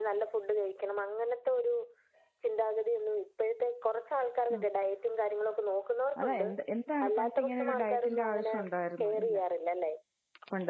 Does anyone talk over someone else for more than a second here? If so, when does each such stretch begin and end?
7.1-8.6

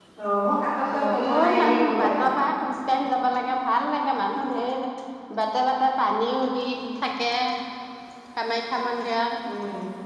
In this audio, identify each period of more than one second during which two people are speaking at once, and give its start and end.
1.0-2.3

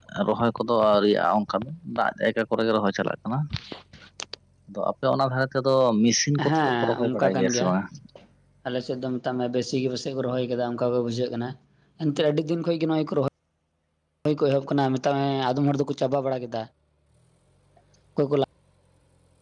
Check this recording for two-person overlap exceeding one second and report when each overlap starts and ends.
6.5-7.7

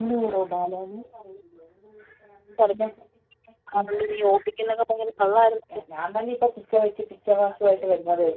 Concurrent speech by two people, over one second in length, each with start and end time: none

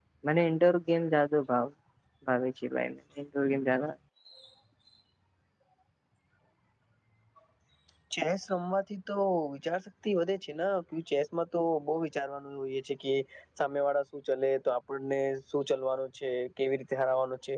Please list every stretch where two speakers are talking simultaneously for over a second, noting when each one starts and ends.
none

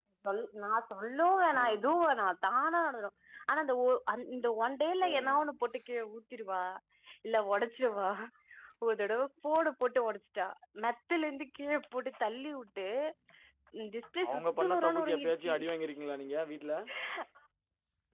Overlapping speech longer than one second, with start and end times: 14.3-15.5

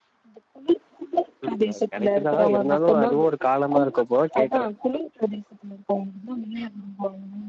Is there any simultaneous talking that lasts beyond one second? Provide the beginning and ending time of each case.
1.6-3.3

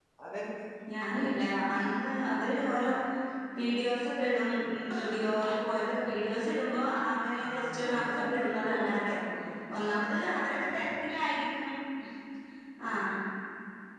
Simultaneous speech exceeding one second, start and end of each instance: 7.4-9.1

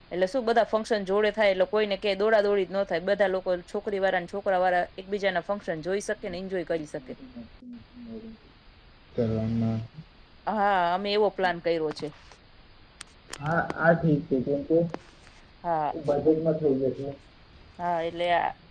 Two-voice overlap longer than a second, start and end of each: none

